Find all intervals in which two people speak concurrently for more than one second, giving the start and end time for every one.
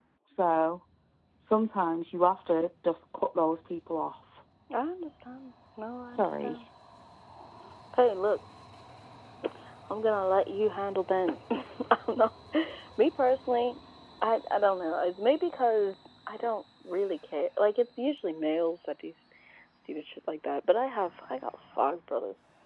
none

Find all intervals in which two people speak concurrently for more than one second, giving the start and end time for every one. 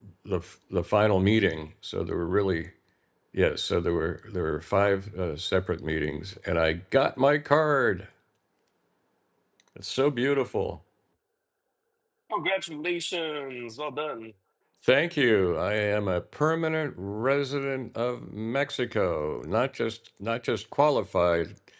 none

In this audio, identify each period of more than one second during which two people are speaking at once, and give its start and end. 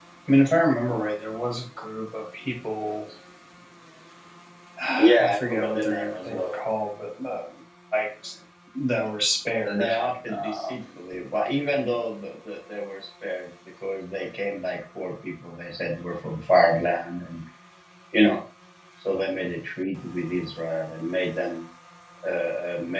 5.0-6.5

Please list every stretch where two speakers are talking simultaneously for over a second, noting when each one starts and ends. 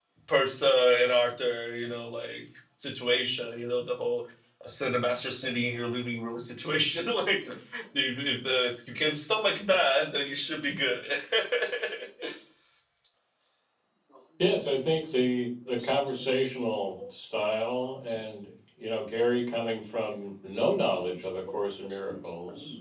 none

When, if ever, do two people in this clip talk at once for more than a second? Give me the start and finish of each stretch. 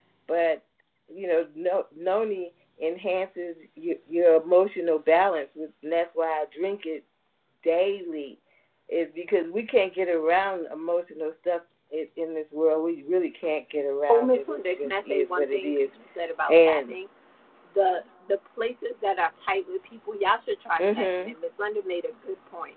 14.1-15.9

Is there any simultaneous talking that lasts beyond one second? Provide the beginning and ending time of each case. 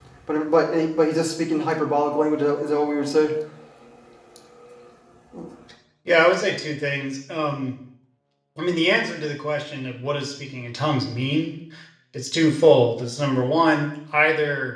none

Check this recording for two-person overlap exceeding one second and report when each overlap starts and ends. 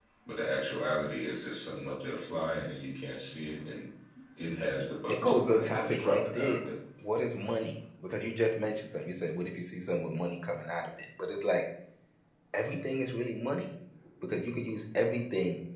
5.1-6.6

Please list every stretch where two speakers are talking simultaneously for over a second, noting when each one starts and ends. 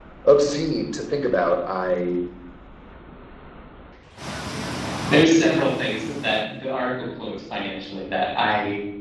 none

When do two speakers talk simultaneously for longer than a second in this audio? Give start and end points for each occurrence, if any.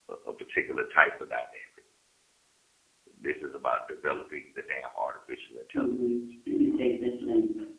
none

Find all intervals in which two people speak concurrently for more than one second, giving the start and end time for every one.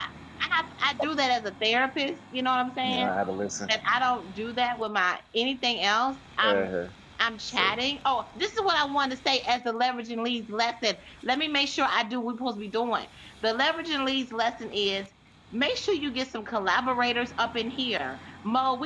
none

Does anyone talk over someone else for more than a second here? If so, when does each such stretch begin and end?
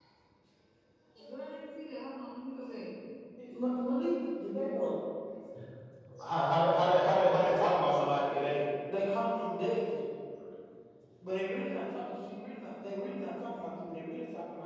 none

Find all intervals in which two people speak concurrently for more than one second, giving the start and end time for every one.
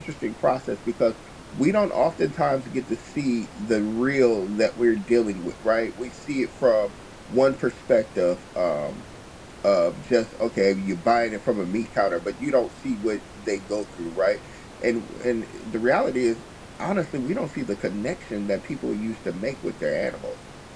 none

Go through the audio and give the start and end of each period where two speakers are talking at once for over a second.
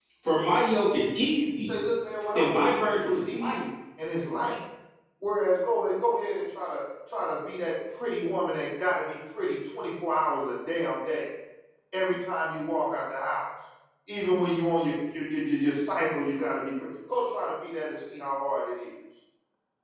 2.4-3.6

